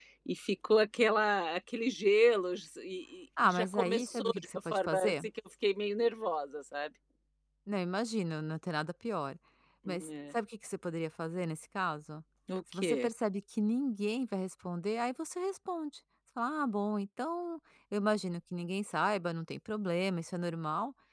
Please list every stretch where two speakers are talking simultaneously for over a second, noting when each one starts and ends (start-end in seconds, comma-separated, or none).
3.4-5.2